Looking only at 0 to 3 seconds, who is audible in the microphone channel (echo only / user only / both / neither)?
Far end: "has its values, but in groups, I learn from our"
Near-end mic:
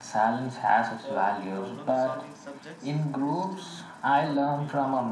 both